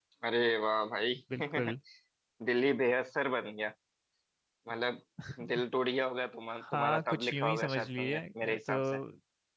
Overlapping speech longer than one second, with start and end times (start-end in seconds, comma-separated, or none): 6.5-9.0